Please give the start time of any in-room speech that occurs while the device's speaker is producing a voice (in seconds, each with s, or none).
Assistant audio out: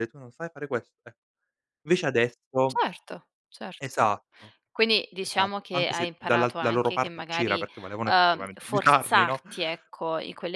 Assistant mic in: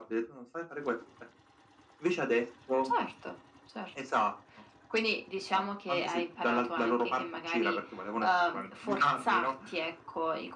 none